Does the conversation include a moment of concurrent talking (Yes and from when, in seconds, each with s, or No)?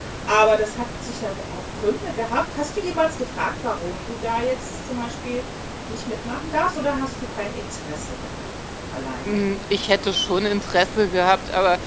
No